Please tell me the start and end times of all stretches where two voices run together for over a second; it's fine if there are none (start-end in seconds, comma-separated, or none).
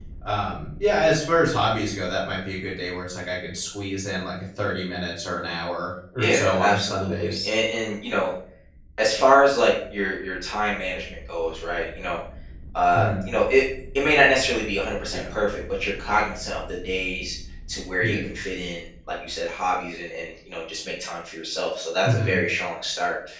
6.2-7.5